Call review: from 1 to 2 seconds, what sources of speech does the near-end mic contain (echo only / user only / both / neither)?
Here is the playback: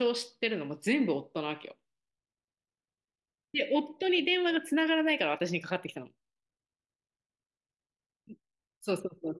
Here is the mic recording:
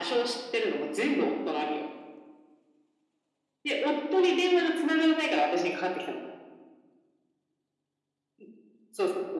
echo only